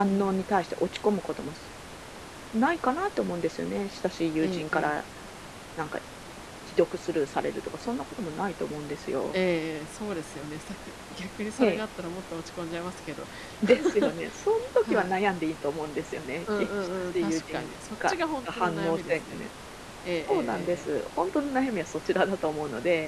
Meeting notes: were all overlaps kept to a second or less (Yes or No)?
No